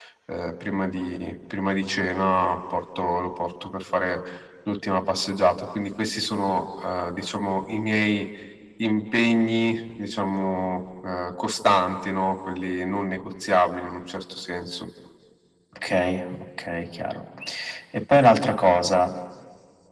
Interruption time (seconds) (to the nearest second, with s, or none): none